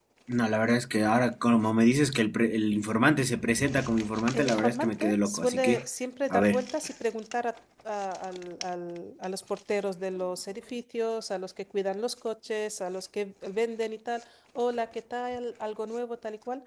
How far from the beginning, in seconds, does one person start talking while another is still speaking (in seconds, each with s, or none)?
4.3 s